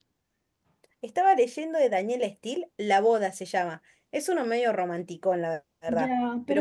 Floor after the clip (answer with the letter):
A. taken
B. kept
A